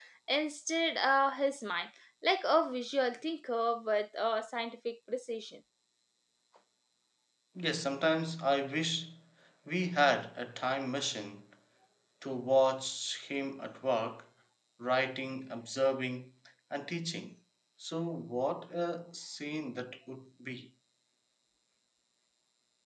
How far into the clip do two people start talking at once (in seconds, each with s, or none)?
none